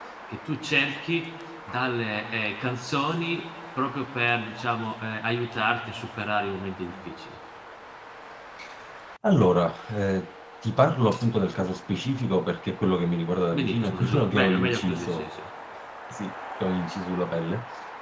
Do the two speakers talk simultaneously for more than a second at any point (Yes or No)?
Yes